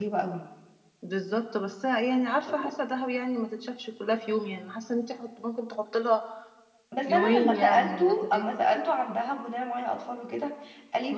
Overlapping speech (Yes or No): Yes